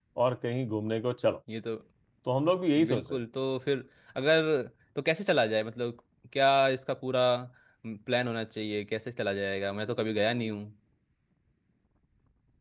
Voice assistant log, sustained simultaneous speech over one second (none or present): none